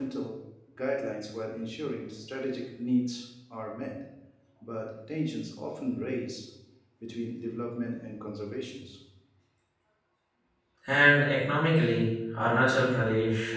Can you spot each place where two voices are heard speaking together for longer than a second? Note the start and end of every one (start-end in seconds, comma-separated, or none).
none